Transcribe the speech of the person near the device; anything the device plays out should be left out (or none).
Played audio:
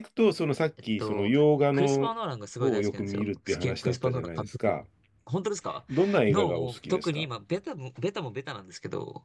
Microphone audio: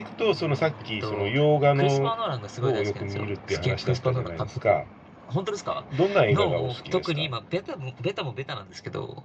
none